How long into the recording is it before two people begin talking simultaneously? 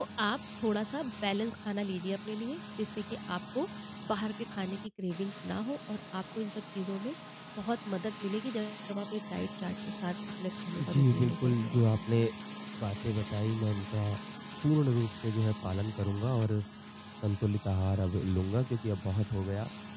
10.8 s

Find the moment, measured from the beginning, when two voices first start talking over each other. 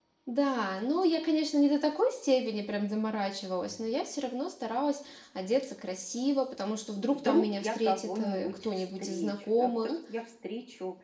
7.0 s

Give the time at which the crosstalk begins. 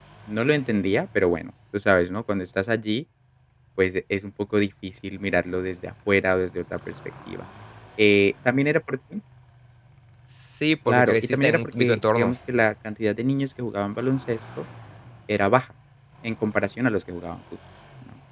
10.9 s

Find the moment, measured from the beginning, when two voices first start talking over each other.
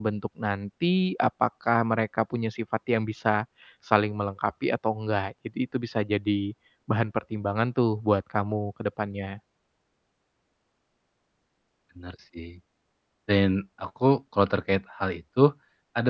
none

